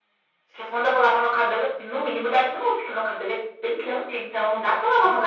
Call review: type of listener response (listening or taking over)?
taking over